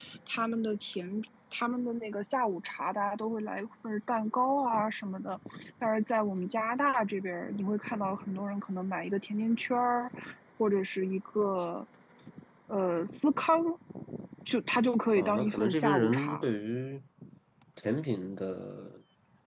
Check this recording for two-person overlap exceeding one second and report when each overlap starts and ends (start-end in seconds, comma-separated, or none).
15.2-16.5